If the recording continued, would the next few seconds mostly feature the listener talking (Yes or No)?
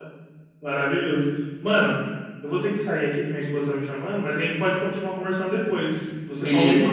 No